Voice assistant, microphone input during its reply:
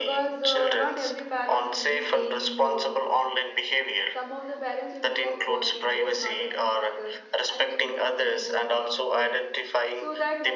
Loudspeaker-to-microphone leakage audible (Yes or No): Yes